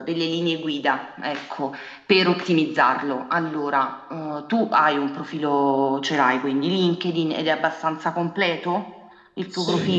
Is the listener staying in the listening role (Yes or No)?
No